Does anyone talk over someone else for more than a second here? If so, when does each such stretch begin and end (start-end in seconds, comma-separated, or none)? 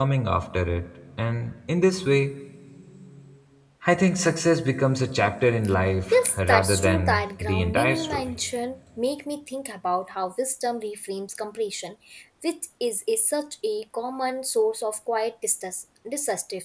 6.1-8.3